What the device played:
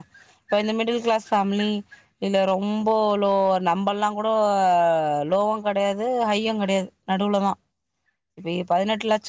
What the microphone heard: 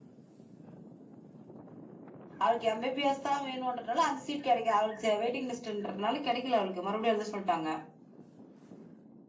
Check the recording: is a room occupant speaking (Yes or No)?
Yes